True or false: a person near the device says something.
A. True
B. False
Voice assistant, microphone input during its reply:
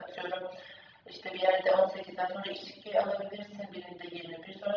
B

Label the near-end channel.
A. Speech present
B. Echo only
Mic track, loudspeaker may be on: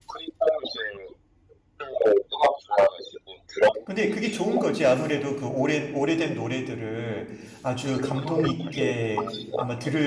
A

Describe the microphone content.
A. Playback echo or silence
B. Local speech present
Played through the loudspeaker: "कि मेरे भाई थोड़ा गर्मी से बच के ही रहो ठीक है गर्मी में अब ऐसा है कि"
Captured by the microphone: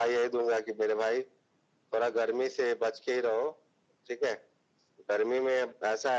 A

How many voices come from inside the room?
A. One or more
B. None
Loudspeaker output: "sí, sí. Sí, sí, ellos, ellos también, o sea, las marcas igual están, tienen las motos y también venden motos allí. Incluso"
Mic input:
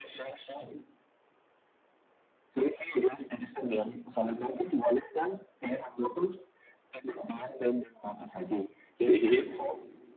A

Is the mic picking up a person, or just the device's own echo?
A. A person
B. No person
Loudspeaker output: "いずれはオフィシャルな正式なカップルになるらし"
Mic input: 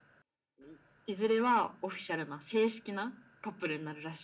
B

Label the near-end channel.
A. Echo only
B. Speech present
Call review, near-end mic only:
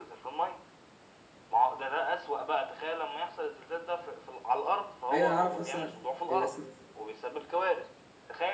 B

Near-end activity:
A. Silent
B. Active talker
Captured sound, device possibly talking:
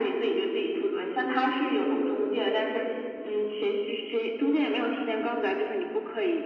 A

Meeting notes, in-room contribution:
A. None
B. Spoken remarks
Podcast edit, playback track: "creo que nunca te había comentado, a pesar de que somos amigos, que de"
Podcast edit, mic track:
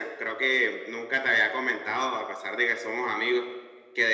A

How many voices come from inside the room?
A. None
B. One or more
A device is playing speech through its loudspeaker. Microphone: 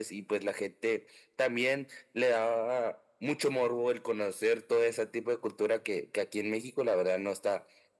A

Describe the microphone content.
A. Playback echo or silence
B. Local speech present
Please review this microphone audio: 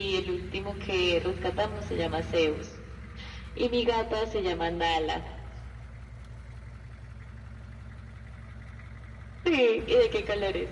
A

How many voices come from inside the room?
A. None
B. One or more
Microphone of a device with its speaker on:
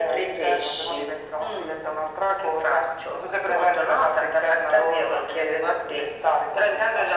A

